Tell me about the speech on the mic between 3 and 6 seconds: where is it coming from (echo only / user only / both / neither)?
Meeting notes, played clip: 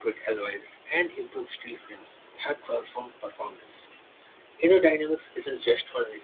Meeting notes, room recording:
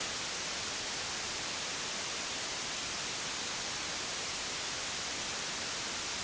neither